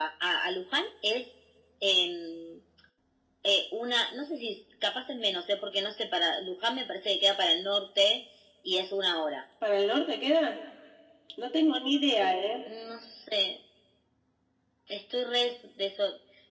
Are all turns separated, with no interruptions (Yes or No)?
Yes